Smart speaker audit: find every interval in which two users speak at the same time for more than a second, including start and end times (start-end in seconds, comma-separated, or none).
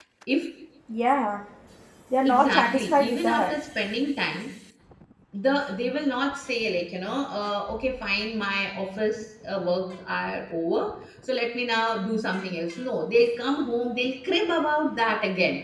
2.2-3.6